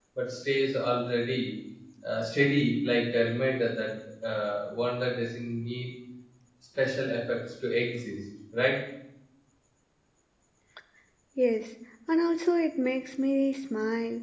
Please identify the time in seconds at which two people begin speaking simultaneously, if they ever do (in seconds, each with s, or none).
none